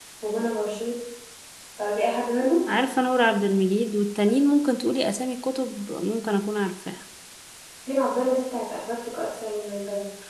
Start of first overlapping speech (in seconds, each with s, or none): none